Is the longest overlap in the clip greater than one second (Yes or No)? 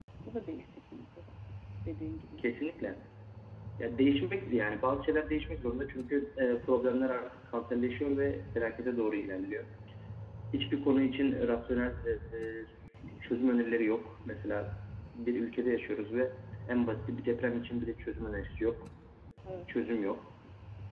No